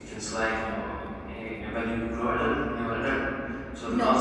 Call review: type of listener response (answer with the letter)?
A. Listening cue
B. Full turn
B